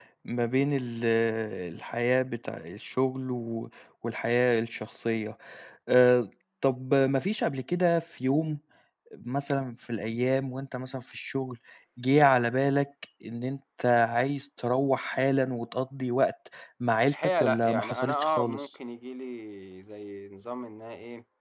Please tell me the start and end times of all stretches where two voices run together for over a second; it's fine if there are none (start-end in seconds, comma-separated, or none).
17.1-18.6